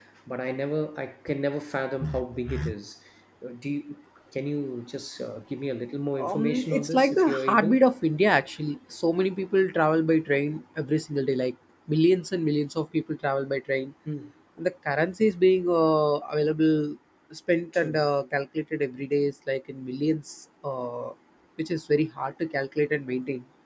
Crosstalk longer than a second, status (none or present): present